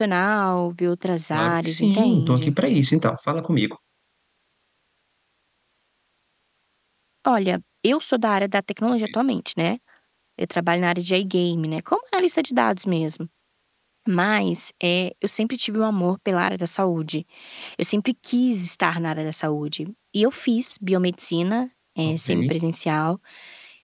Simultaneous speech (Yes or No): Yes